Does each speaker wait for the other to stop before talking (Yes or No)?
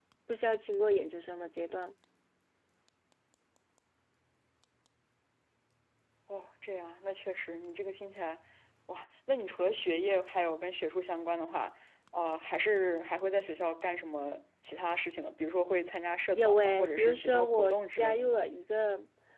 No